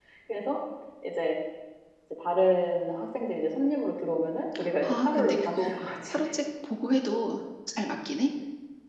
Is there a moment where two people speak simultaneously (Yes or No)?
Yes